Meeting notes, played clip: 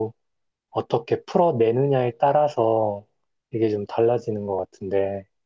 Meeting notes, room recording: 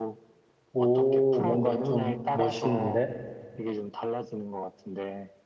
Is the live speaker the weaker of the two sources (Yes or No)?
No